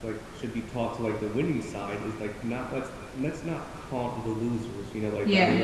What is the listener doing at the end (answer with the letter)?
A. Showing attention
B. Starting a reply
A